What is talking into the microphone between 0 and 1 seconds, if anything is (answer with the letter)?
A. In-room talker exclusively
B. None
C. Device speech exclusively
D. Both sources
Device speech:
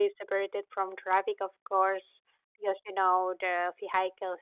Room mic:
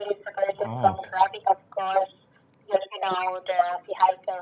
D